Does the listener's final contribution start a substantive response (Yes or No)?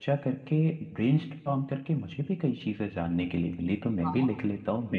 No